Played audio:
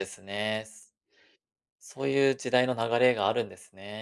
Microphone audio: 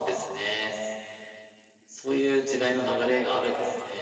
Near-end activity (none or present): none